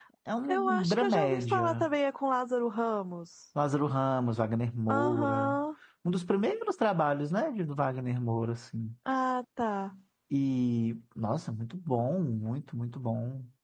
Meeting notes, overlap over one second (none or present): present